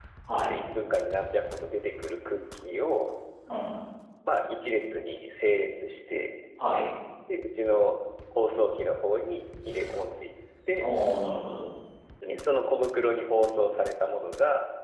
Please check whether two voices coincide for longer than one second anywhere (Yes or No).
No